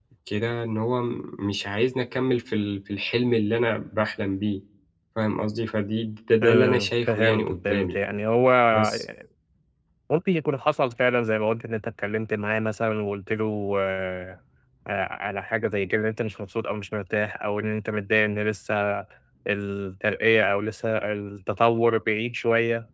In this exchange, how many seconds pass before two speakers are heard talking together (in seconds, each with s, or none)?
6.4 s